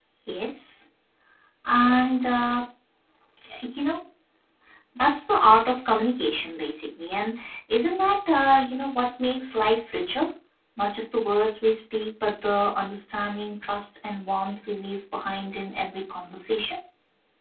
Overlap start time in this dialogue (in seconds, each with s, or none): none